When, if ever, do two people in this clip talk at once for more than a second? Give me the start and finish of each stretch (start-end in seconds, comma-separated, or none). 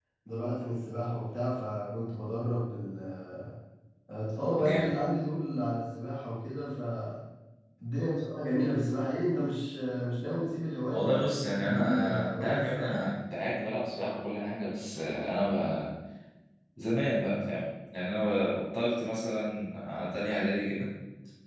10.9-13.0